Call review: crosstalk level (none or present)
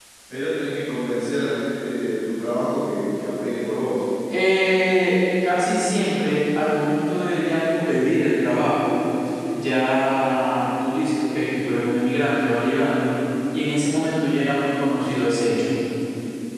none